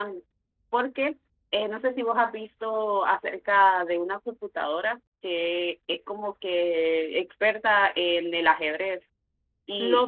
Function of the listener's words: taking over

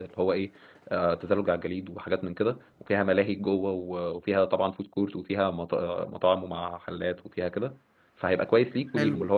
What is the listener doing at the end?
listening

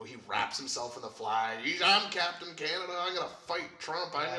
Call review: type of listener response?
taking over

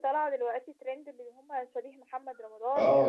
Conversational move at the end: taking over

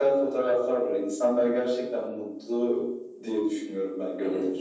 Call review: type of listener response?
taking over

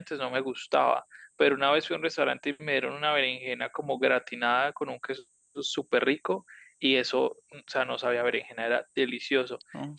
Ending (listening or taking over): listening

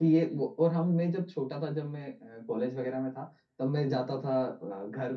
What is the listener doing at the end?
listening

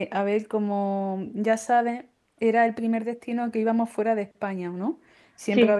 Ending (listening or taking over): listening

